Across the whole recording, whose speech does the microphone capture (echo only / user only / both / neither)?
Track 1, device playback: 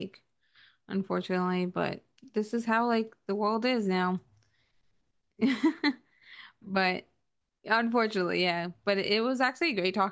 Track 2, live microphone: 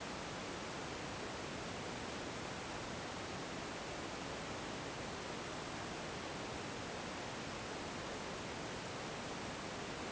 neither